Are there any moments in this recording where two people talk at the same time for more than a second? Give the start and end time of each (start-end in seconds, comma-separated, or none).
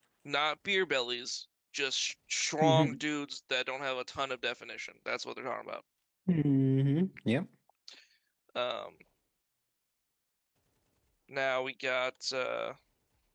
none